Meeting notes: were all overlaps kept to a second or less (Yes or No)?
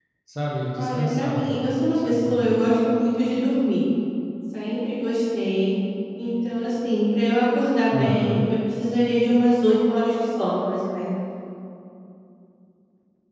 No